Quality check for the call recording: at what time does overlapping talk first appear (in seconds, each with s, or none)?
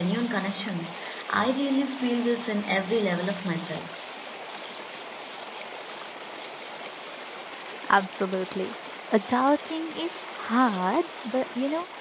none